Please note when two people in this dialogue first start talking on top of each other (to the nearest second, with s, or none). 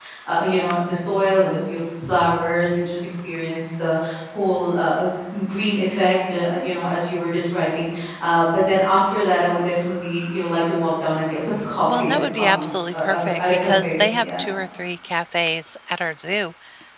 12 s